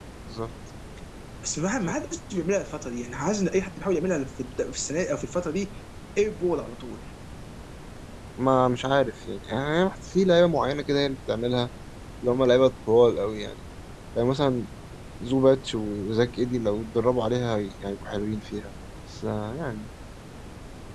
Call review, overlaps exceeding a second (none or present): none